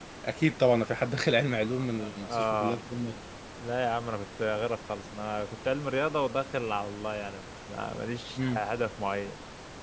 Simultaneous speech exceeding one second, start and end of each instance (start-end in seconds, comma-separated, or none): 1.6-2.8